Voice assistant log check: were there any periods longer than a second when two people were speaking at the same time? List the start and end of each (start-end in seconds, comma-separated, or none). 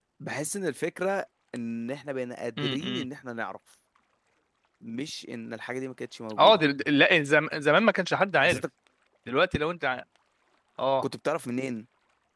none